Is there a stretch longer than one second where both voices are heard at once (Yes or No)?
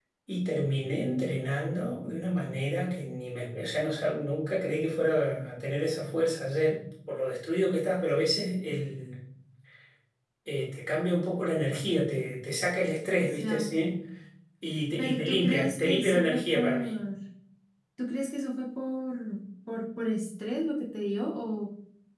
Yes